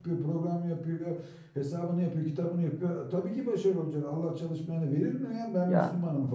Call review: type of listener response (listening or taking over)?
listening